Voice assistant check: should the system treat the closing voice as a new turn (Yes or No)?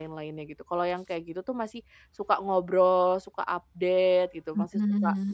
No